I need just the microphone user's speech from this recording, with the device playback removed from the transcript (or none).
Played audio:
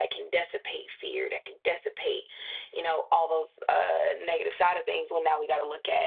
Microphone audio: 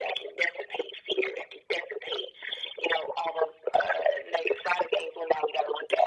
none